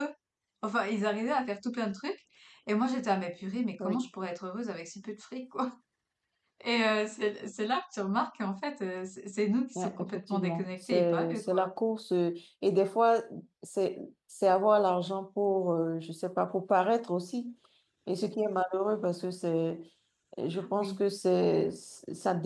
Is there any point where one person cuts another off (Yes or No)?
Yes